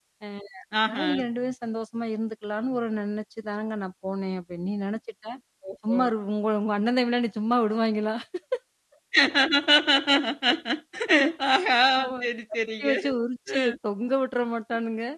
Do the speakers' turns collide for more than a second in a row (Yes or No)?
No